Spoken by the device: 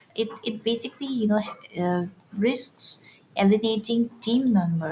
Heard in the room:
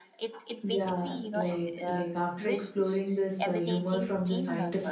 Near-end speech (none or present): present